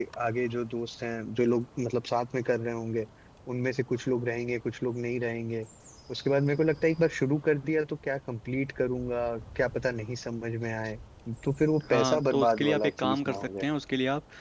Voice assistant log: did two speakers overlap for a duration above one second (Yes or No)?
Yes